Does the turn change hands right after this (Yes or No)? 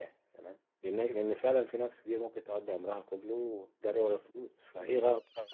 No